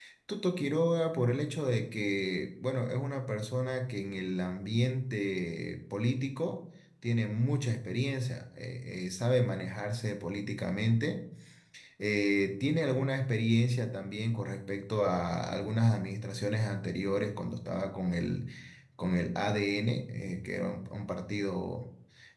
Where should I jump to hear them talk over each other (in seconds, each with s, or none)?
none